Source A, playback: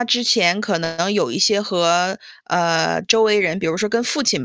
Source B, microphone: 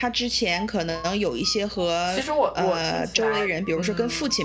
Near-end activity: present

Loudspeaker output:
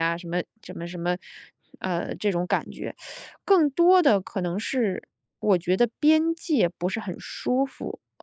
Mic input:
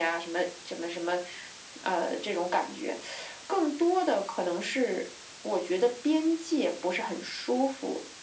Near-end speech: none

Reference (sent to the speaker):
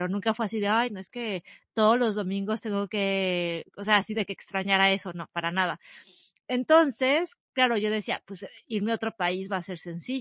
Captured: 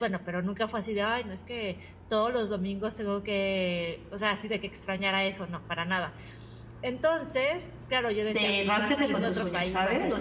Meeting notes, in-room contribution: present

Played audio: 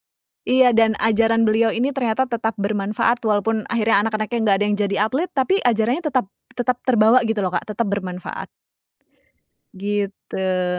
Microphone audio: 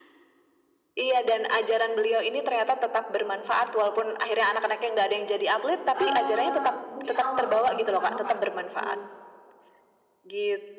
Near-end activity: present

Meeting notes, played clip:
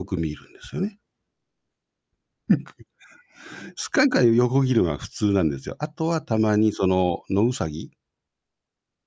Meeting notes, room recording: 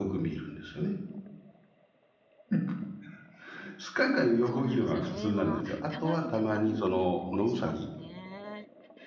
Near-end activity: present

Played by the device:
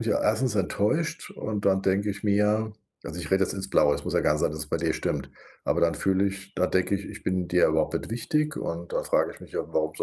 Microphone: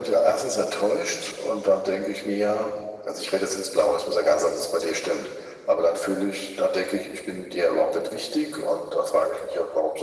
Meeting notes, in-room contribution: none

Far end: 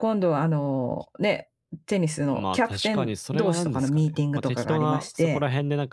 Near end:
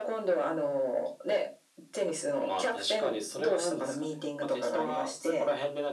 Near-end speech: none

